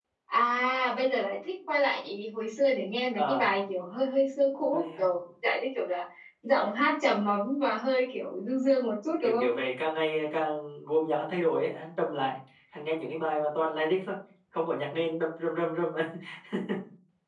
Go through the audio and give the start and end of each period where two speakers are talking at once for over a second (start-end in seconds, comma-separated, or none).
none